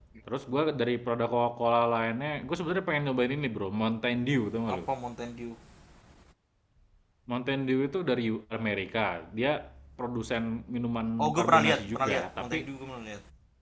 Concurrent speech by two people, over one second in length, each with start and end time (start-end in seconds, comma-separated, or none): 11.2-12.7